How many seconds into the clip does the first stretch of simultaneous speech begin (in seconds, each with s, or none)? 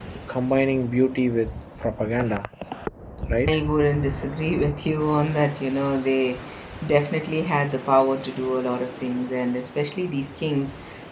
none